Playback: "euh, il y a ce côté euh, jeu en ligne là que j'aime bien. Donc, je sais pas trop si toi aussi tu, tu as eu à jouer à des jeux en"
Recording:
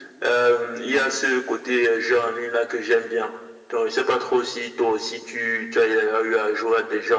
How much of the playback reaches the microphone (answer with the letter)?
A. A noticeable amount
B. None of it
A